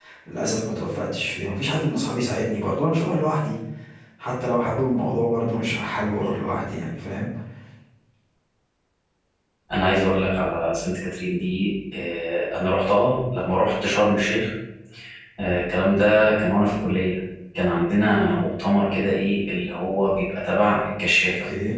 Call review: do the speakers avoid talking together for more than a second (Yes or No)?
Yes